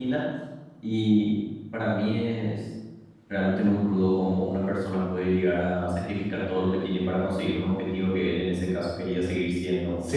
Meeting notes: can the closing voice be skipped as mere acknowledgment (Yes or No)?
No